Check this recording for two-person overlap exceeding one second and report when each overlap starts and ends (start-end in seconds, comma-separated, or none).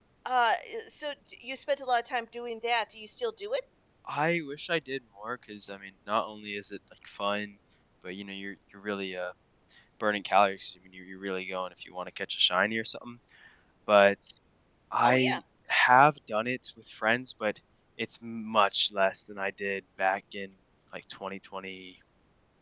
none